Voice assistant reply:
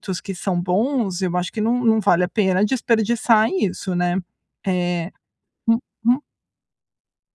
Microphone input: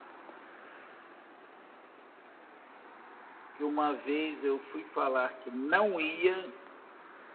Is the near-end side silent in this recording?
No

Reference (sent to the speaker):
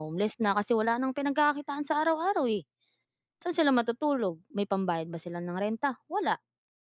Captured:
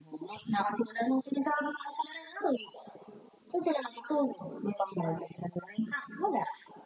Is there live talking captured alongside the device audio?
No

